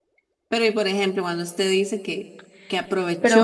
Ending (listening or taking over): listening